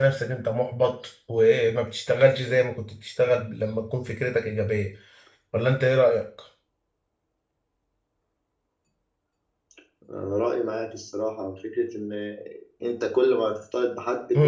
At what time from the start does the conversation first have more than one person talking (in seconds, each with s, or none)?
none